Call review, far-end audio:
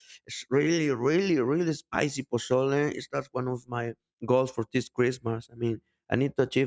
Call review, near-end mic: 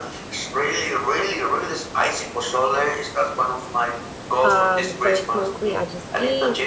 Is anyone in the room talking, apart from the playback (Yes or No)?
Yes